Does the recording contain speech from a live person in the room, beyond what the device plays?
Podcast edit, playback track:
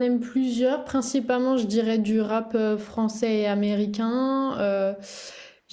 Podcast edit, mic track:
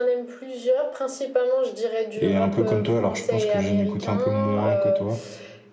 Yes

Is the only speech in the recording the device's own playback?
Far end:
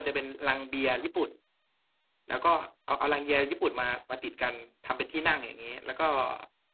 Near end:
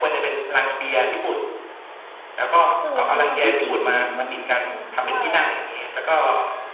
No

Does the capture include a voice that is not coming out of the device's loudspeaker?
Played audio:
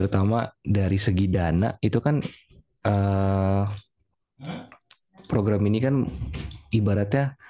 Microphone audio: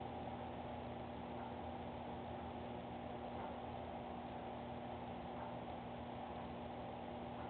No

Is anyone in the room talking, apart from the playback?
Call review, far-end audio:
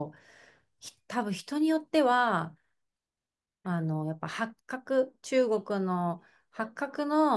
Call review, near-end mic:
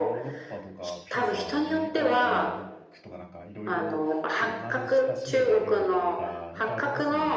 Yes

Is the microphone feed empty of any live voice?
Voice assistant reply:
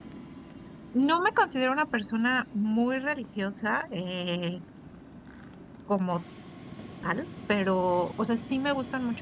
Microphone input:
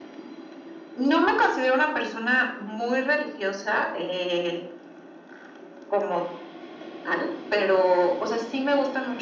Yes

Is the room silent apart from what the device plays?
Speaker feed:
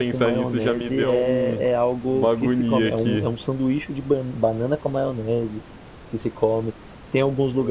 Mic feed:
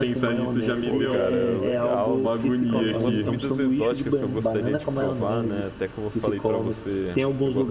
No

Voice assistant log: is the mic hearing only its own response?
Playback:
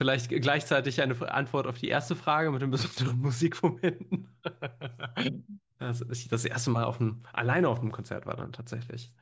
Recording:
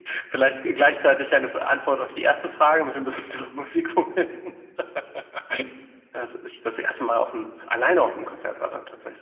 Yes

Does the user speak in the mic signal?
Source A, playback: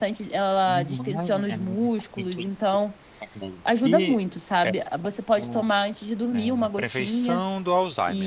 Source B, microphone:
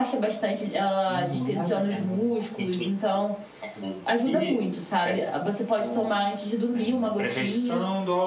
No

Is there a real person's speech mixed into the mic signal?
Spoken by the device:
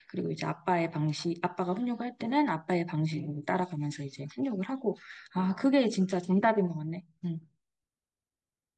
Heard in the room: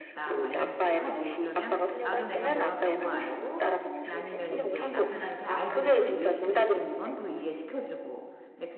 Yes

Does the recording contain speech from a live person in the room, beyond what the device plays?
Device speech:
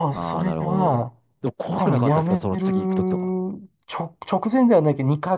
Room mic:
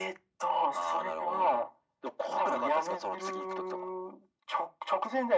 No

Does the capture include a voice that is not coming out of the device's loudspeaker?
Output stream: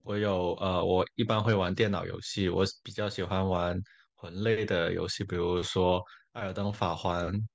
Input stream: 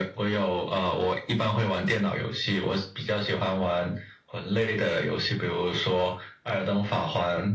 No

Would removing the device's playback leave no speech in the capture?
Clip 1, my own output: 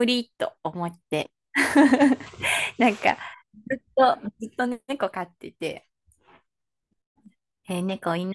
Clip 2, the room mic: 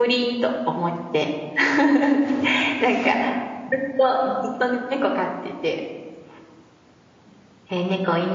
Yes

